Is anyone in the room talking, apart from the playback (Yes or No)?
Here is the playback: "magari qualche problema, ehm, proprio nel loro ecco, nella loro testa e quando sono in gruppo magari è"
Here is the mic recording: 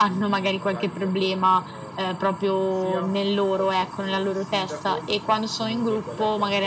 Yes